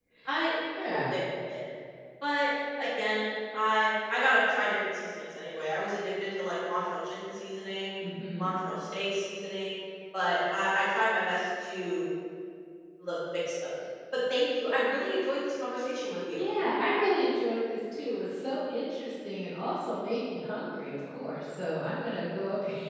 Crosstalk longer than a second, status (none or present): none